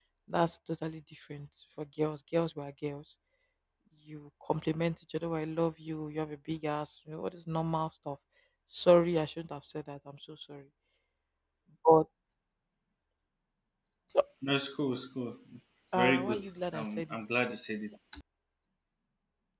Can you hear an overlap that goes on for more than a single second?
Yes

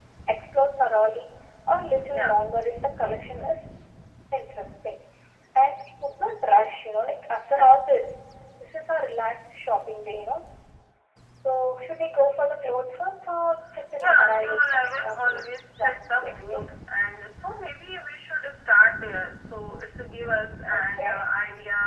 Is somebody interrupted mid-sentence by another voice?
Yes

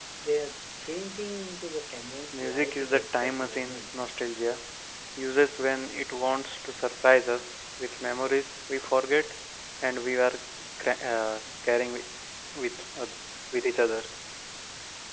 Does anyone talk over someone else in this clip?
Yes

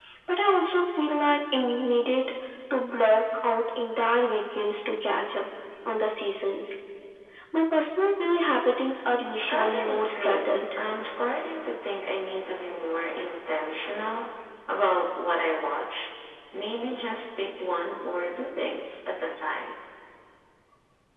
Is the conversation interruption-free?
No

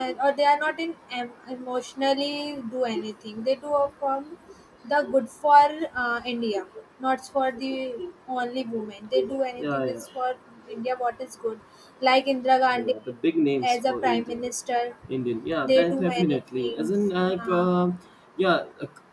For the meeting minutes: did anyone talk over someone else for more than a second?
Yes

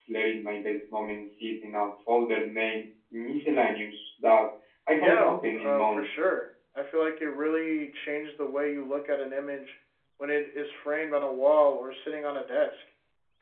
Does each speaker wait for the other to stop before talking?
No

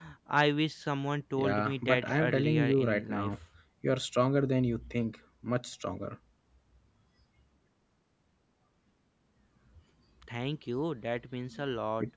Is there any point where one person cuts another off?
Yes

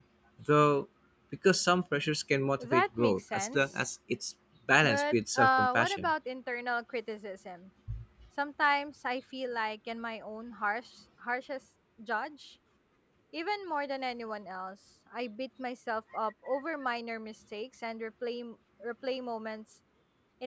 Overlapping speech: Yes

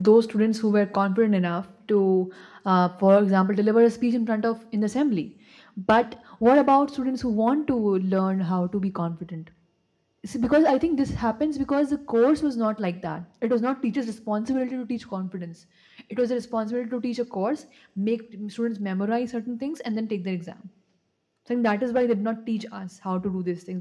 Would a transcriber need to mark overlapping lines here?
No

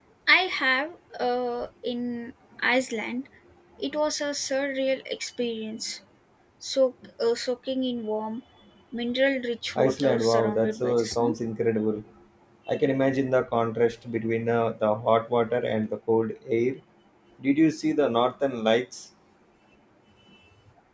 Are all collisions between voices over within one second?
No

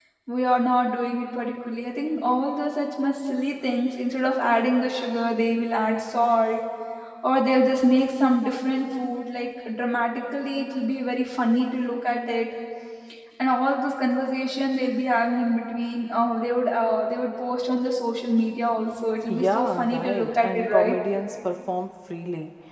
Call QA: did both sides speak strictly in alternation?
No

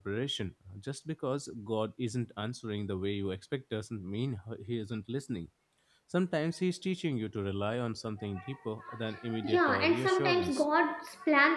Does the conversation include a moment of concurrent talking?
Yes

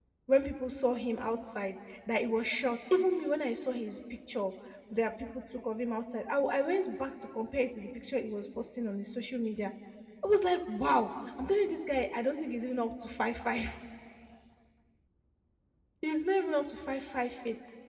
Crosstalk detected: No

